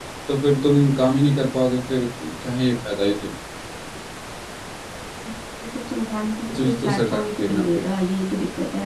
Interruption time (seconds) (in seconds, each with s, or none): 6.5 s